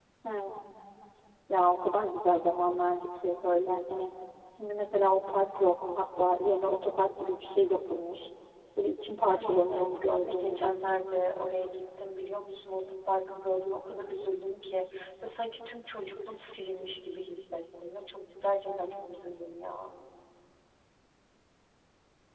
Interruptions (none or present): present